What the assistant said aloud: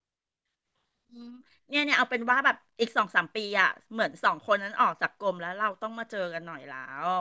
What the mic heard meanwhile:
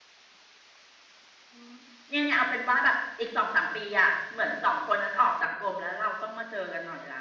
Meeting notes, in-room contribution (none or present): none